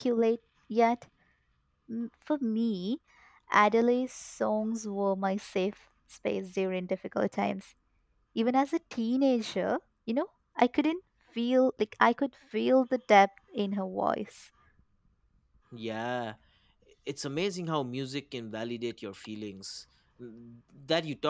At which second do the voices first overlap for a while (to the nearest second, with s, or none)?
none